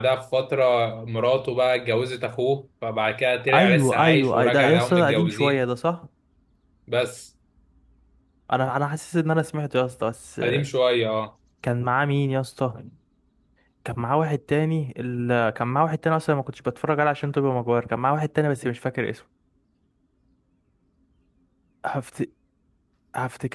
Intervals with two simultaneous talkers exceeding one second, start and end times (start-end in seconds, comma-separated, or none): 3.5-5.6